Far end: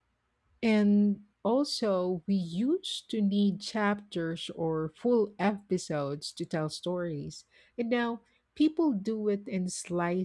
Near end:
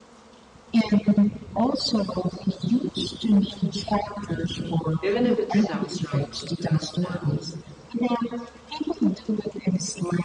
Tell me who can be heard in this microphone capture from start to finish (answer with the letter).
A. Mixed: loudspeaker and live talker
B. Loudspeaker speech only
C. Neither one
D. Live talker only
A